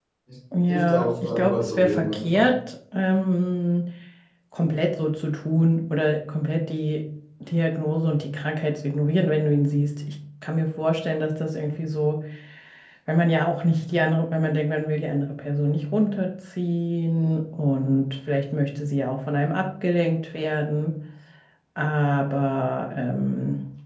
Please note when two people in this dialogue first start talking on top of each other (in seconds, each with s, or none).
0.7 s